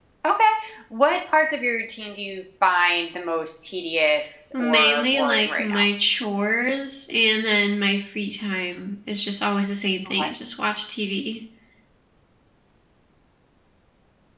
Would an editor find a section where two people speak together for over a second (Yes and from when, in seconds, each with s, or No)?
Yes, from 4.5 s